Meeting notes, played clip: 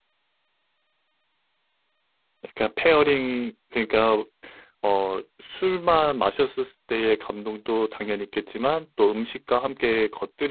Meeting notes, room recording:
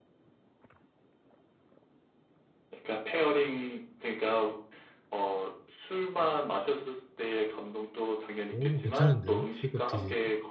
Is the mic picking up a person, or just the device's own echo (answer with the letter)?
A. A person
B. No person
A